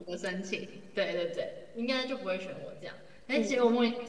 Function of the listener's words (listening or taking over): listening